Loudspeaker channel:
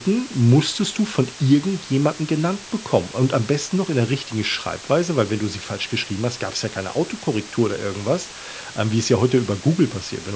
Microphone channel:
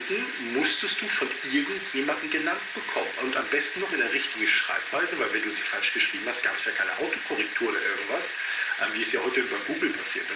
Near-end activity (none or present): none